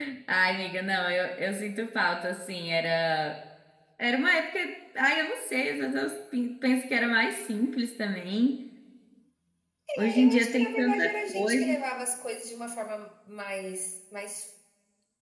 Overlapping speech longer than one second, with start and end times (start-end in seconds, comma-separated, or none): 10.0-11.6